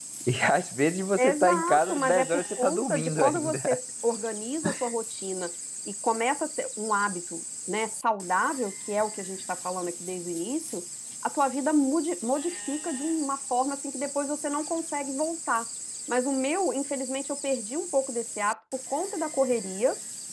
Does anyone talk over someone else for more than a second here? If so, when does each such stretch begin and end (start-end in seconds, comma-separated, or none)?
1.2-3.6